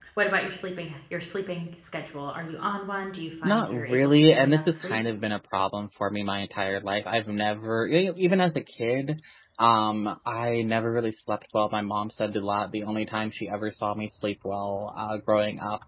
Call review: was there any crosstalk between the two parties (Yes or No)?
Yes